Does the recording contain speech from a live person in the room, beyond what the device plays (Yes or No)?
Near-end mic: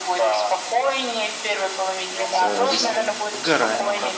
Yes